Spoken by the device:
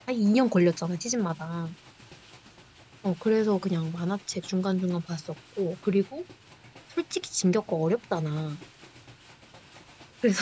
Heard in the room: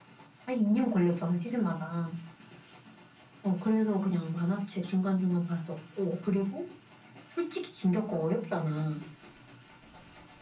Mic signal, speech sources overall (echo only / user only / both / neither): echo only